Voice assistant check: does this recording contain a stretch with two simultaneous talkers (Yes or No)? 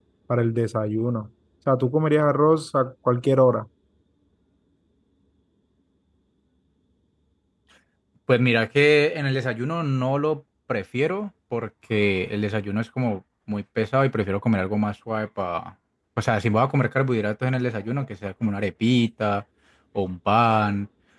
No